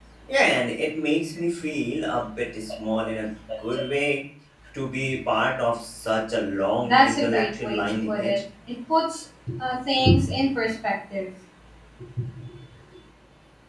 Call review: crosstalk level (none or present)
present